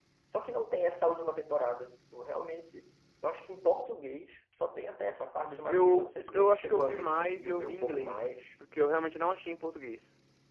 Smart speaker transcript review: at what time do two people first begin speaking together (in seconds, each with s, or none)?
5.5 s